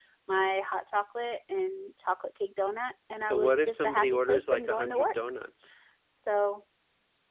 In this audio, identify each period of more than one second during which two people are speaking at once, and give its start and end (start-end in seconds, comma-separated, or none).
3.2-5.1